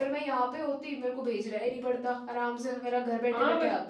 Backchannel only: No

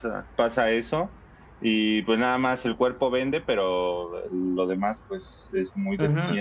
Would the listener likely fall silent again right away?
No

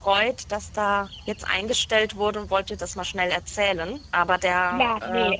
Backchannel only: No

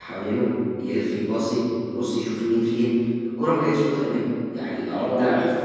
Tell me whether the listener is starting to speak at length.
No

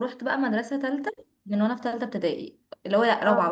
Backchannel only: Yes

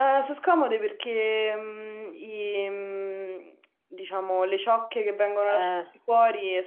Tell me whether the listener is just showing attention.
Yes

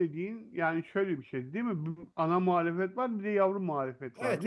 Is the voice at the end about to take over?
Yes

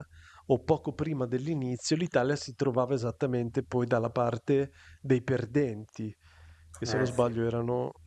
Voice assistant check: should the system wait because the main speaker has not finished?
Yes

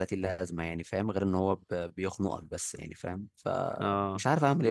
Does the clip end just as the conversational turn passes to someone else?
Yes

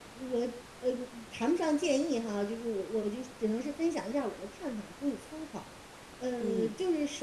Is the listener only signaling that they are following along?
Yes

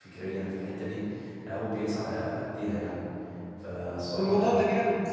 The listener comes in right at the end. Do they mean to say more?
Yes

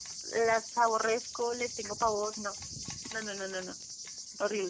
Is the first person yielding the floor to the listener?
Yes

